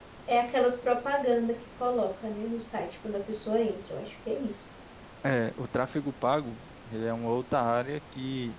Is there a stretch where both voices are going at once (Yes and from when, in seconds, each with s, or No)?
No